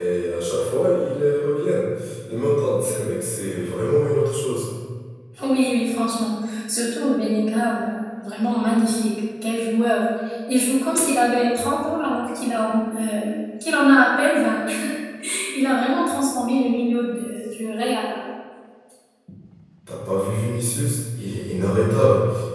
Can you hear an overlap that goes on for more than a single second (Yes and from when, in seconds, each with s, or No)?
No